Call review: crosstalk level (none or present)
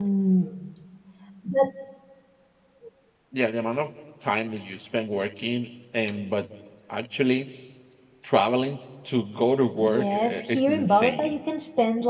present